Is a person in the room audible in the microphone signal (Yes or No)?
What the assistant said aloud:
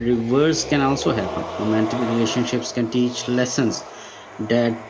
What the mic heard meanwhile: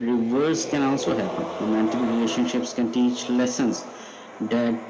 No